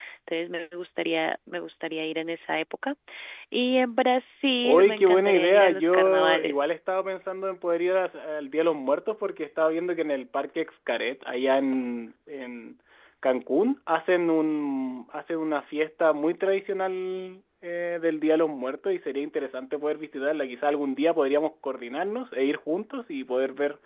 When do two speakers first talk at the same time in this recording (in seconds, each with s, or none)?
4.6 s